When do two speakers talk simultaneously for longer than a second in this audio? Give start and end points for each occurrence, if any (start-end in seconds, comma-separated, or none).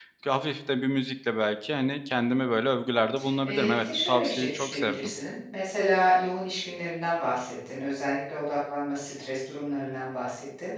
3.4-5.1